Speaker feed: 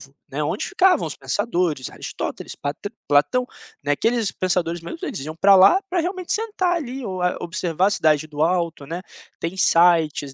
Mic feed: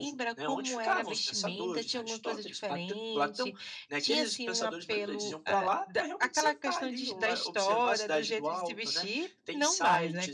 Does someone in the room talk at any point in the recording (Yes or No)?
Yes